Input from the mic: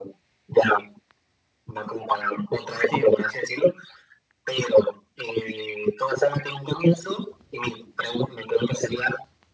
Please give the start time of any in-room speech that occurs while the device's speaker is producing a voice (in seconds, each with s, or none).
2.7 s